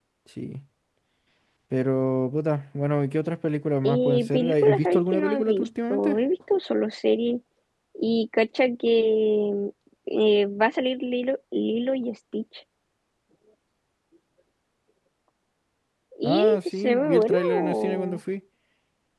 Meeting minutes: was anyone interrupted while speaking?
Yes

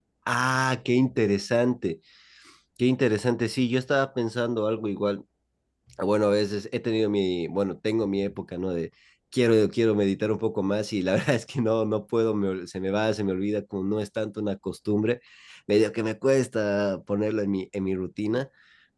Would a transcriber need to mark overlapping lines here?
No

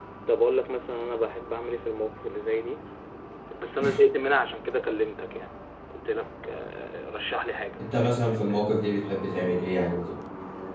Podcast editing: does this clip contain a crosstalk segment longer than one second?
No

